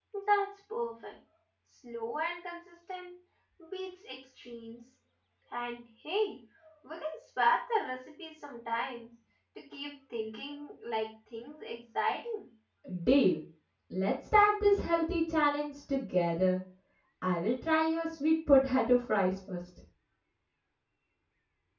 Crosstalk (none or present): none